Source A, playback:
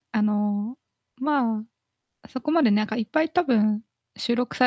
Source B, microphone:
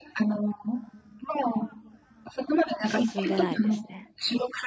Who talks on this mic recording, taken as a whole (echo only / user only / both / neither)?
both